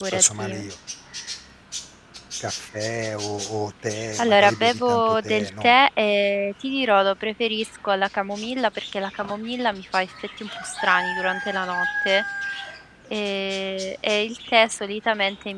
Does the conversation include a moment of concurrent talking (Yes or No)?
Yes